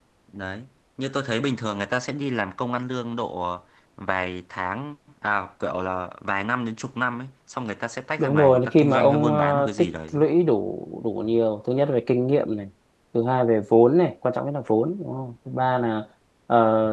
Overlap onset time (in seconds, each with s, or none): 8.2 s